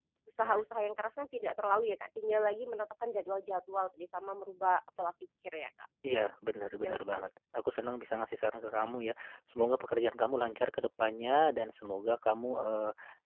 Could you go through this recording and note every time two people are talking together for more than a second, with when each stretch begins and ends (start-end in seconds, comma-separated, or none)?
none